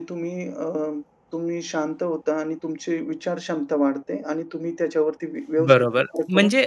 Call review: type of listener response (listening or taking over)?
taking over